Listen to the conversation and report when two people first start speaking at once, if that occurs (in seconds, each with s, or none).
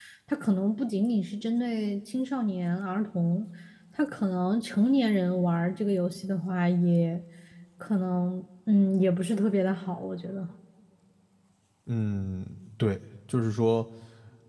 none